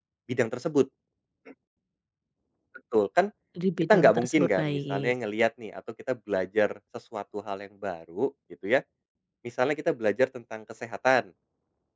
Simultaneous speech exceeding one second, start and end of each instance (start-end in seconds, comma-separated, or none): 3.8-5.1